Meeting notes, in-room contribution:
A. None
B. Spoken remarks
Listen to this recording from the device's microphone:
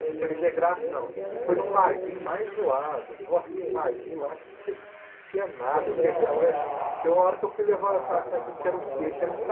B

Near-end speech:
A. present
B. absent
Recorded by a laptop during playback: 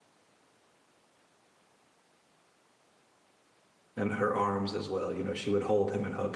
A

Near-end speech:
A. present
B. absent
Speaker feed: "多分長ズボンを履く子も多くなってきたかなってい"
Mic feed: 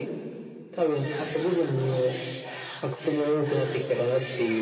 B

